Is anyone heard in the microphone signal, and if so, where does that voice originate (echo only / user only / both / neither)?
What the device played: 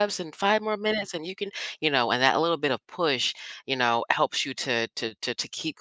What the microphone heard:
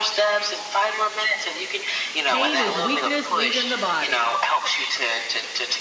both